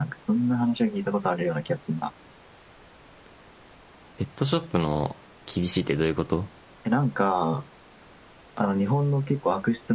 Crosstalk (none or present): none